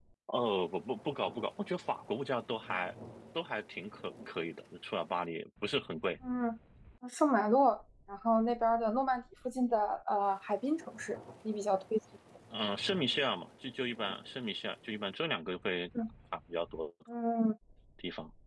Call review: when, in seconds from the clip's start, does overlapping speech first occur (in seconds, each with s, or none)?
none